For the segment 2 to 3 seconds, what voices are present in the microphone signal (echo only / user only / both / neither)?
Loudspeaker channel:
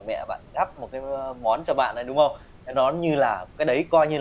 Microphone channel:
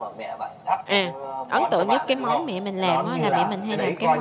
both